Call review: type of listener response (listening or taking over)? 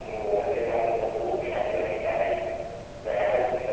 listening